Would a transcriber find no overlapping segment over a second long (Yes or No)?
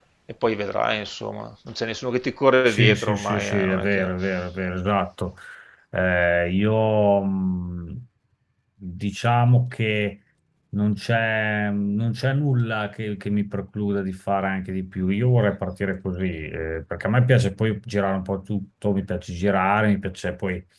No